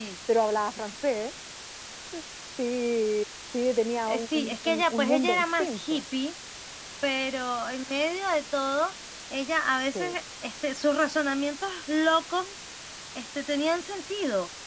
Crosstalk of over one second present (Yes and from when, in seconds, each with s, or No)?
Yes, from 4.1 s